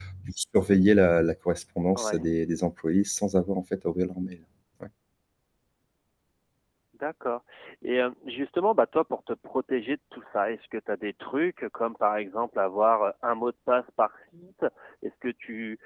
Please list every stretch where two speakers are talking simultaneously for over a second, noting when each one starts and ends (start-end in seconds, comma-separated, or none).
none